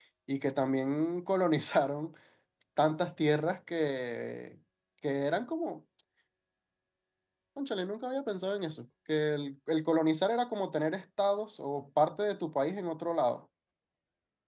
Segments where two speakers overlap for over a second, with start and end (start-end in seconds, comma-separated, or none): none